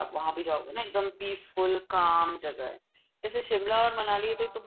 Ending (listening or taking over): listening